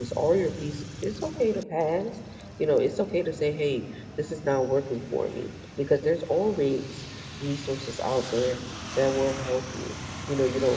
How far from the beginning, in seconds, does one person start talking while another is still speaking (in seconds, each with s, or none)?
none